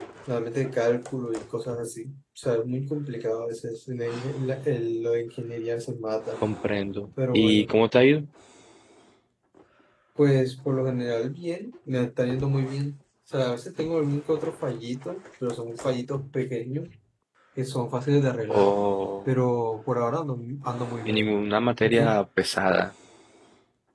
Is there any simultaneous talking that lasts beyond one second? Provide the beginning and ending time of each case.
none

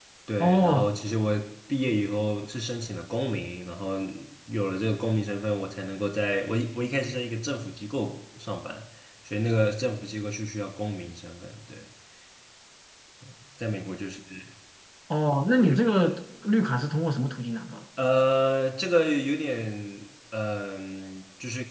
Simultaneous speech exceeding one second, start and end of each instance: none

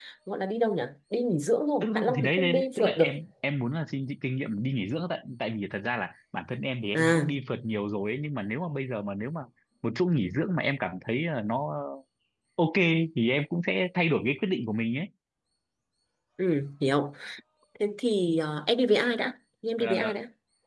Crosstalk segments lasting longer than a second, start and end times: 1.8-3.1

